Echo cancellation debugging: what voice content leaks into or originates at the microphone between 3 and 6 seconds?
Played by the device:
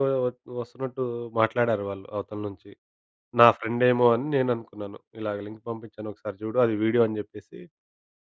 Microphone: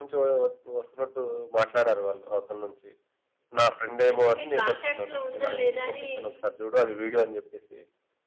both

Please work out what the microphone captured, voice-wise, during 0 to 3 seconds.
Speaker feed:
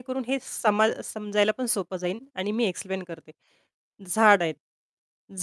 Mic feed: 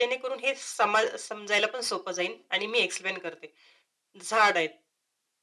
echo only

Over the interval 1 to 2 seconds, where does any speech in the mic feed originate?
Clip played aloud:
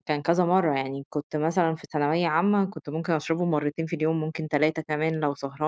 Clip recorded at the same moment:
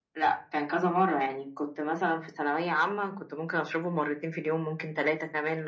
echo only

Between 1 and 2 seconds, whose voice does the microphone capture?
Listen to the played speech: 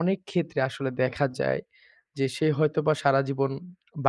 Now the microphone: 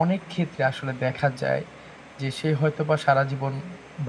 echo only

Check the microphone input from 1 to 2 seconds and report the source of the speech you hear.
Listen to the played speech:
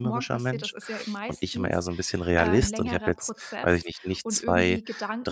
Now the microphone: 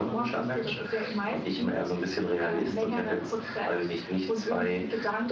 echo only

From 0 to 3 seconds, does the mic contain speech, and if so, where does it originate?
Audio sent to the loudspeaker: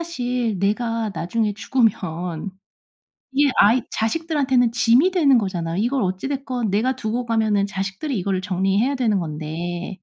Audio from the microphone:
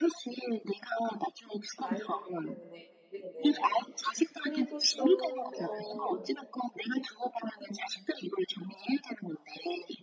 both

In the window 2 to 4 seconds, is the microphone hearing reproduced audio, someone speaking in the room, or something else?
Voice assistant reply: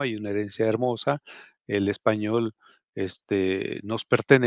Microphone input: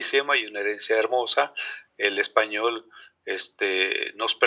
echo only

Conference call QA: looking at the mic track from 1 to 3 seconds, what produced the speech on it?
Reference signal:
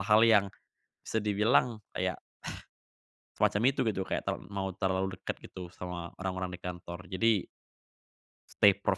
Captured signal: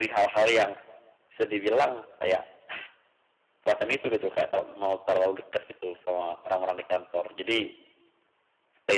echo only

